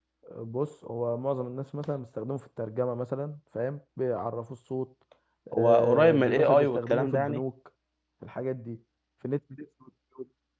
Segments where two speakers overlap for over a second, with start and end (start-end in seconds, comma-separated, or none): 5.6-7.4